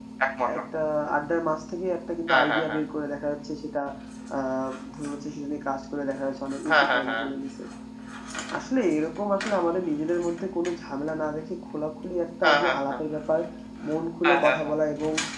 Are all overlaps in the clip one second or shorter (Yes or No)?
Yes